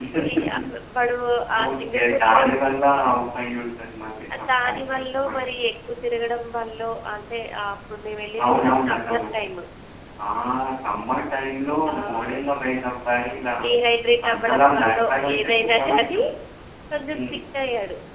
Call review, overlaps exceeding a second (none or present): present